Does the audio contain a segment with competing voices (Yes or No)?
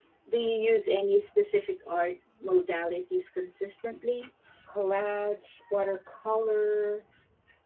No